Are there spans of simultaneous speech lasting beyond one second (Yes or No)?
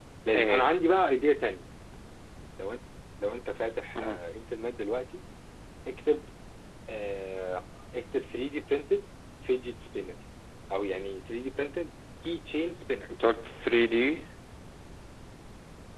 No